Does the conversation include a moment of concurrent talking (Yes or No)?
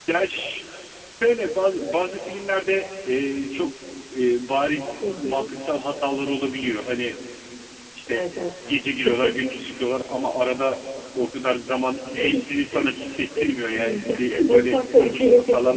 Yes